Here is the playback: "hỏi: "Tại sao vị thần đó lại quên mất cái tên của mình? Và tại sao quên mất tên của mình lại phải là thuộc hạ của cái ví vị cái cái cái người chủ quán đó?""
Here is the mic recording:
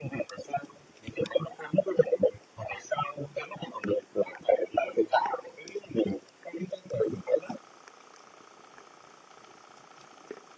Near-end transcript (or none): none